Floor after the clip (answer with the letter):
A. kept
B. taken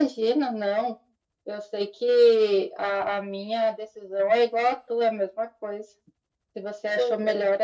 A